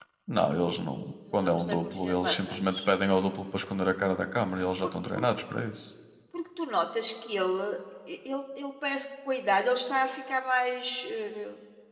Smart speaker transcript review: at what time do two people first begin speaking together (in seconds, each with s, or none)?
1.3 s